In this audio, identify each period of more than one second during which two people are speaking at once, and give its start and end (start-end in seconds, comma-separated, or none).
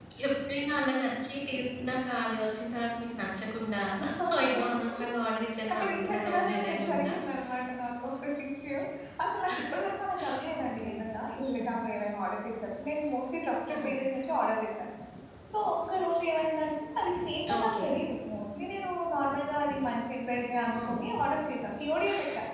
5.7-7.1